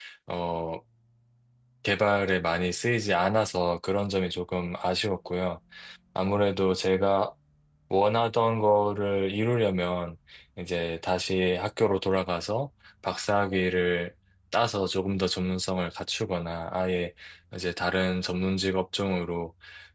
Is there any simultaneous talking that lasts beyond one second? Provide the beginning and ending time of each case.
none

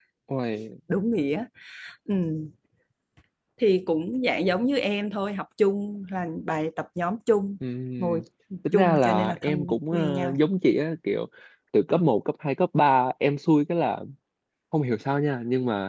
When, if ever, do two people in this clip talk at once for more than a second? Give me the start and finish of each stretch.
8.7-10.4

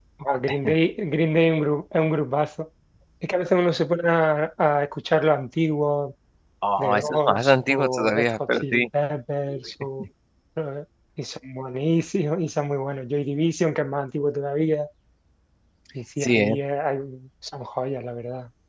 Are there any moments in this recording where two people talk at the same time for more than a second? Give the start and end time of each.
6.8-8.8

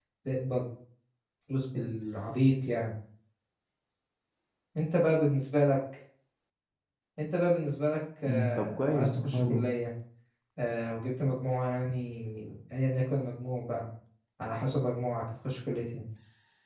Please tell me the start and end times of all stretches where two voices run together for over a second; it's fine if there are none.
8.3-9.6

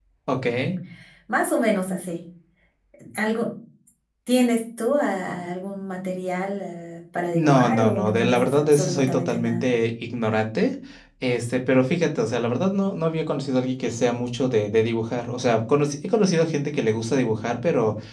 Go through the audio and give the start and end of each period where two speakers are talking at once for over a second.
7.3-9.7

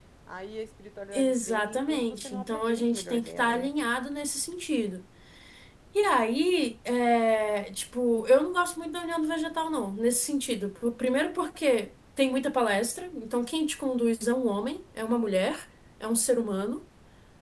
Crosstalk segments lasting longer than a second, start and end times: 1.1-3.7

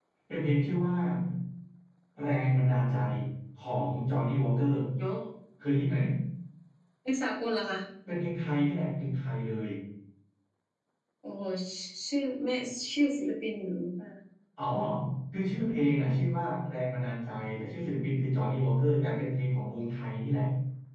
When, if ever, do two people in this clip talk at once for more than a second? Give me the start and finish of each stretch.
none

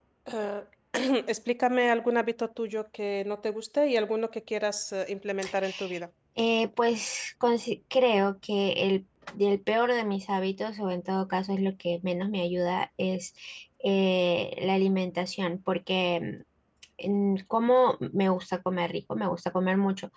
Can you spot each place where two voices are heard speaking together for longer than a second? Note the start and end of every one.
none

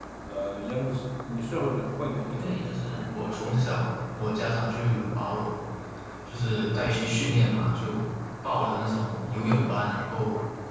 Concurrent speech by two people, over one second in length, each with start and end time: 2.2-3.6

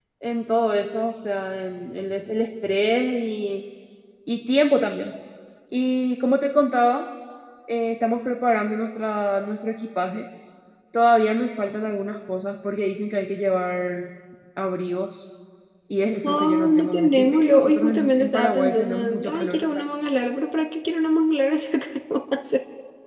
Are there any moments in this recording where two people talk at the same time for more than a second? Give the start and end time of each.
16.2-19.8

